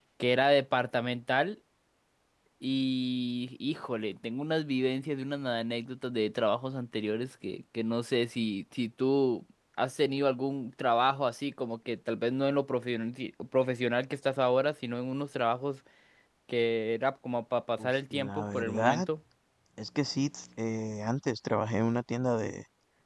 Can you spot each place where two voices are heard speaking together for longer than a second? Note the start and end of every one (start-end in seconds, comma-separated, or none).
17.8-19.1